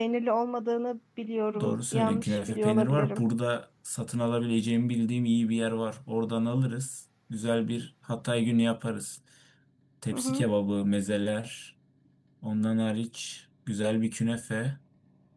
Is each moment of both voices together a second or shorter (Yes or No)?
No